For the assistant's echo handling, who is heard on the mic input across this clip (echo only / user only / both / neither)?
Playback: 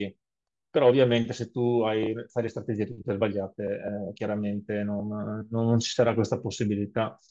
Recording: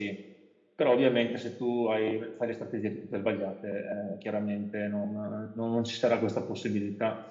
echo only